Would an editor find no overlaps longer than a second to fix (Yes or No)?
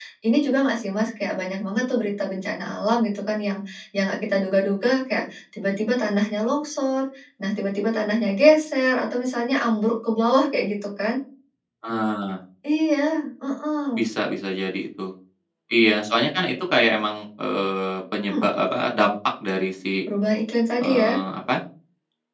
Yes